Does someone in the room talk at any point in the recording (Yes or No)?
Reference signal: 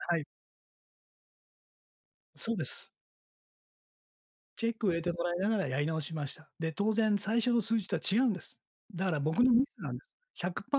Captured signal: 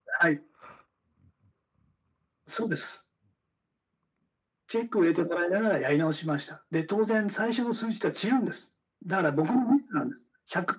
No